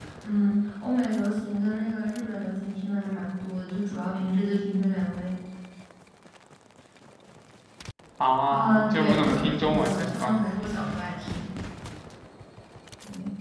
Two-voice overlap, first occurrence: 8.5 s

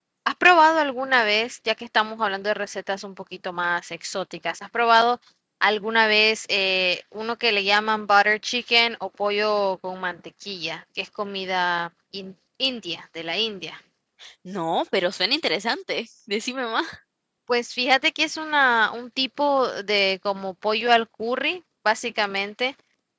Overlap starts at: none

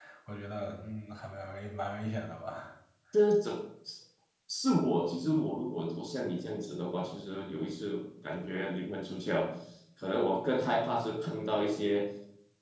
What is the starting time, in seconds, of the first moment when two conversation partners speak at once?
none

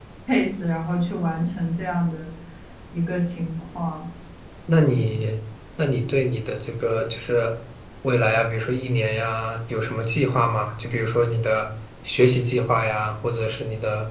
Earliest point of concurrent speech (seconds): none

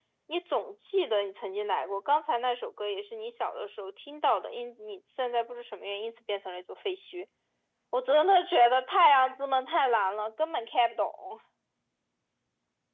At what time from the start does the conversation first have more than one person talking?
none

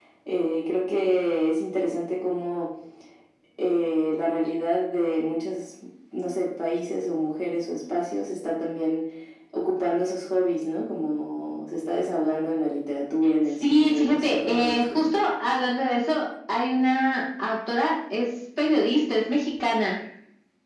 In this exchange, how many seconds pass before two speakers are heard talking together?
13.6 s

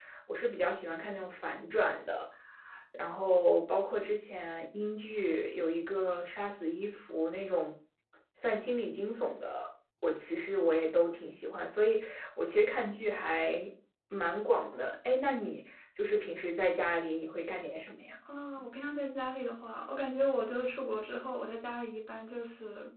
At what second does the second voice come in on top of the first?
none

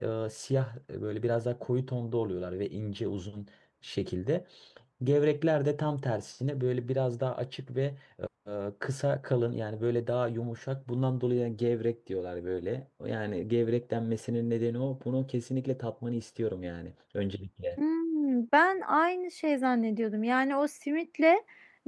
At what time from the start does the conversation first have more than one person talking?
none

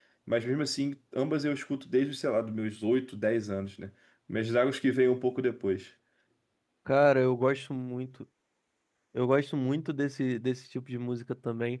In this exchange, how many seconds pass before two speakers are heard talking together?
none

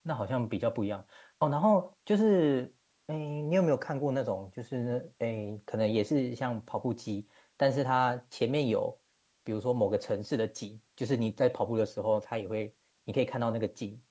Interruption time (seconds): none

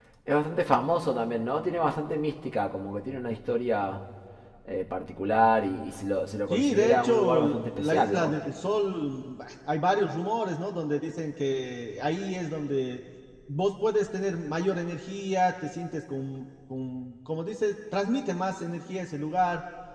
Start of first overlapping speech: 6.5 s

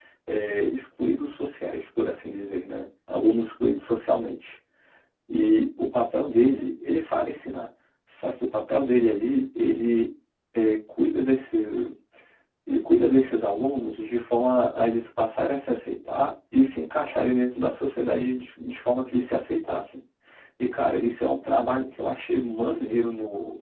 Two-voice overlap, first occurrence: none

